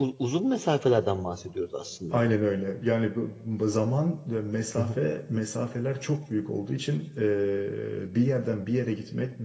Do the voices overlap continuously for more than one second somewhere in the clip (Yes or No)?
No